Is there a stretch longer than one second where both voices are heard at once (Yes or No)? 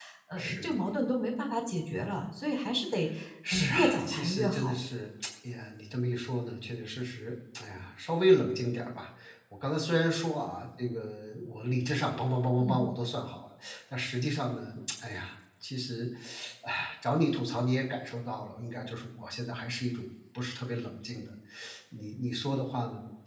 Yes